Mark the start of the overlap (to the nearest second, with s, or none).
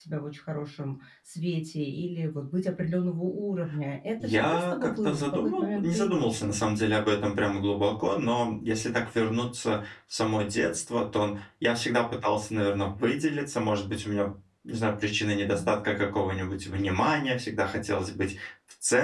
4 s